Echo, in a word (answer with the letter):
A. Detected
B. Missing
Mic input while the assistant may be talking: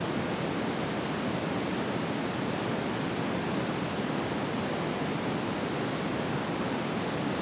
B